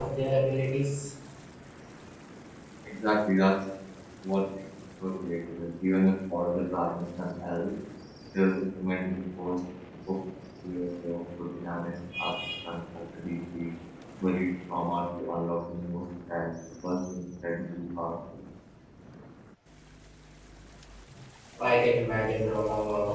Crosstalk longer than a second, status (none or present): none